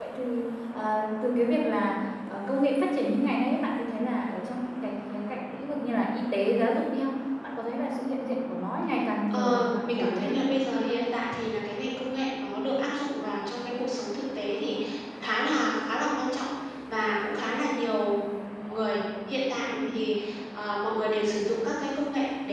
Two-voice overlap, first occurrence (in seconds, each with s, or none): 9.3 s